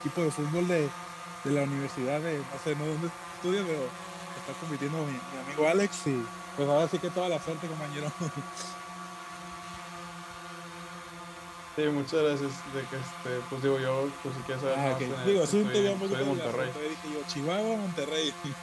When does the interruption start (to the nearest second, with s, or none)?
15 s